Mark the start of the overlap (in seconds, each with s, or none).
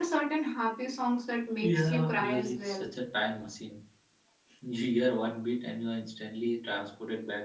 1.6 s